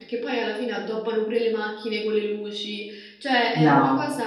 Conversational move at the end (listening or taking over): listening